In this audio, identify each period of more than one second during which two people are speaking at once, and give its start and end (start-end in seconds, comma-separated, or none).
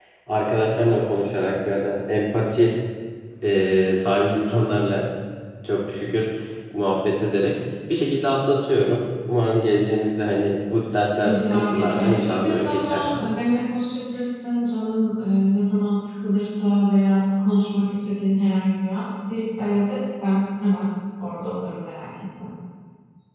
11.2-13.1